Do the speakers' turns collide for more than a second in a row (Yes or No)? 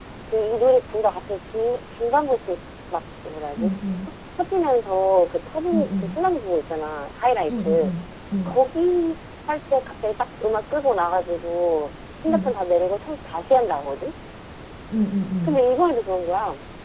No